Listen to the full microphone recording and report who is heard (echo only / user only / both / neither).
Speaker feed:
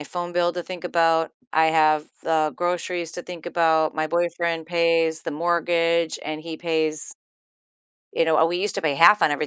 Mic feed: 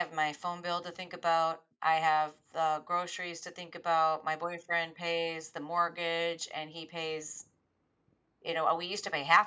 echo only